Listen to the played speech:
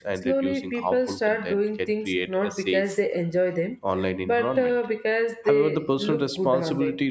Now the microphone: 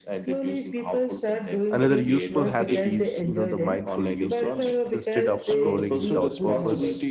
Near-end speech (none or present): present